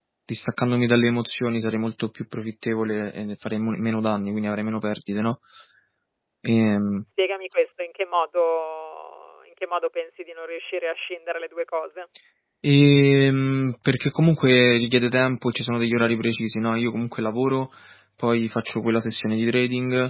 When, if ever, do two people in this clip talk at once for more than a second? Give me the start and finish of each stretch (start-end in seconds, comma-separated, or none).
none